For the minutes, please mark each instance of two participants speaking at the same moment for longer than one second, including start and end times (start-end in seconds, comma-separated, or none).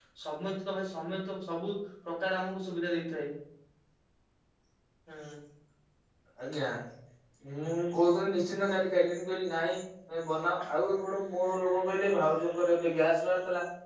none